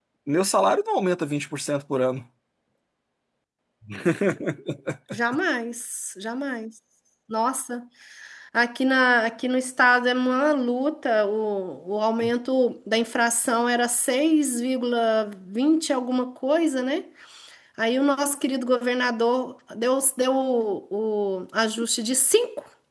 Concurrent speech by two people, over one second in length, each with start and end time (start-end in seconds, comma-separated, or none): none